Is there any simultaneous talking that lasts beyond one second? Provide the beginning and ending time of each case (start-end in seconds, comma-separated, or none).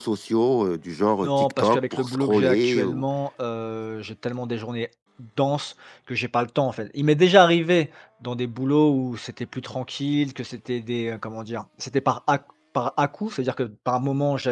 1.2-3.0